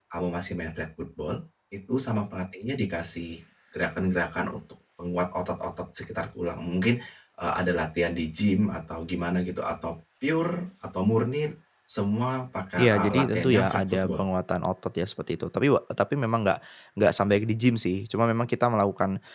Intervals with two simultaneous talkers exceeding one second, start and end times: 12.8-14.2

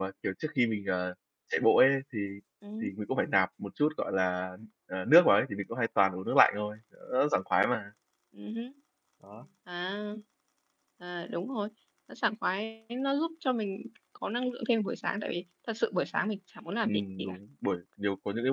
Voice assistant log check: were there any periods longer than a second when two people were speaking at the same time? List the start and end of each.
none

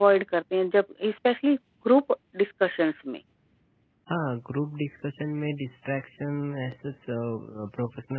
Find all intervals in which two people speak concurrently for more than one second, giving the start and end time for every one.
none

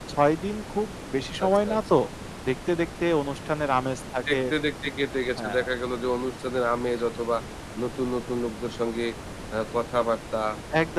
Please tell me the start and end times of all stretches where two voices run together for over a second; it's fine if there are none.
none

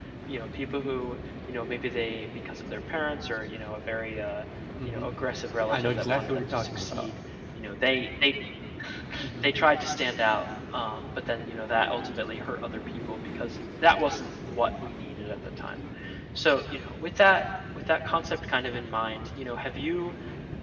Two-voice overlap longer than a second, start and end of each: 5.7-7.1

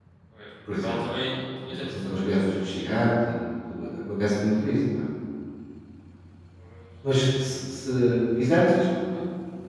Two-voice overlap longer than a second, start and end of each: 1.7-3.0

